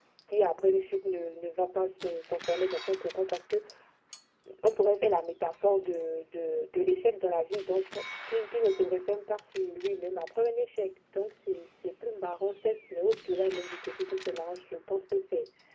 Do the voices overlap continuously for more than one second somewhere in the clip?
No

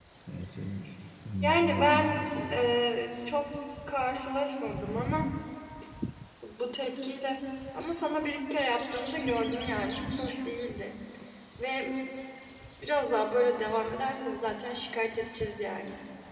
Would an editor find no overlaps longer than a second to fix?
No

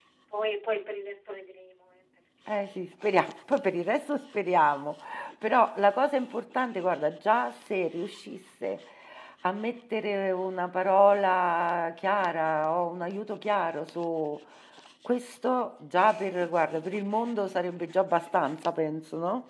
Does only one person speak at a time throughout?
Yes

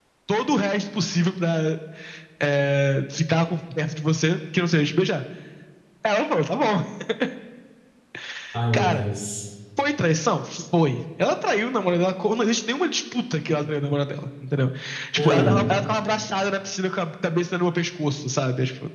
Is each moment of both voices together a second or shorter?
Yes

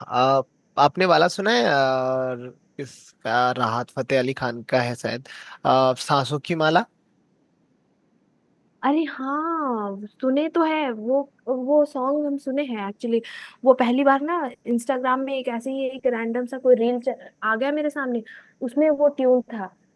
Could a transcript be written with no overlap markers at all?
Yes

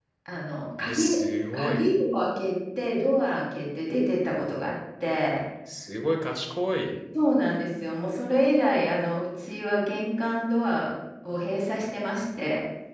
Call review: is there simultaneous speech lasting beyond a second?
No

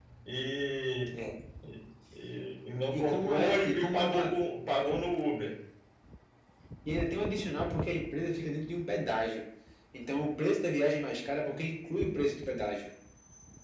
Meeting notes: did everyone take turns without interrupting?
No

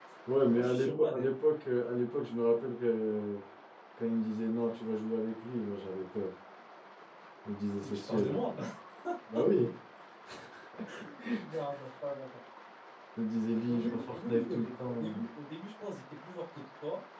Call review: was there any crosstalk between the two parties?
Yes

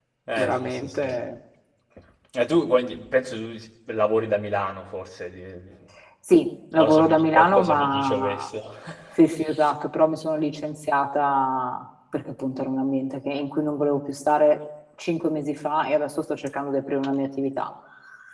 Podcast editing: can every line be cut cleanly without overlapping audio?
No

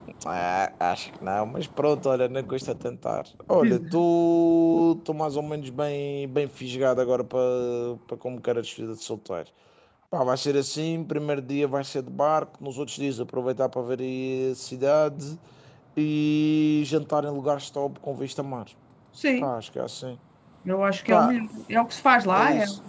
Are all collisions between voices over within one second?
Yes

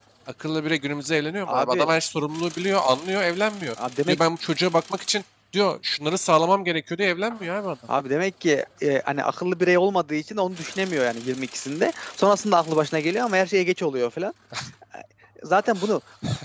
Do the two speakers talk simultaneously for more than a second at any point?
No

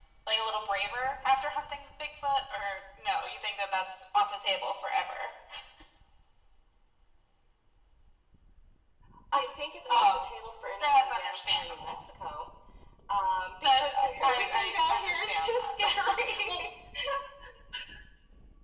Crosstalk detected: Yes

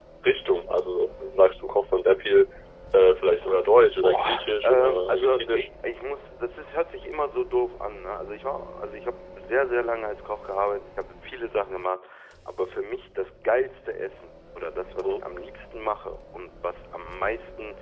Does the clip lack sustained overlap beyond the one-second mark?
No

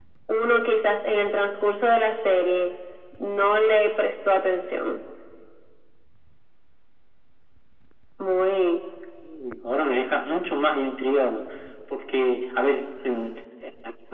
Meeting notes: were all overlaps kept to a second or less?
Yes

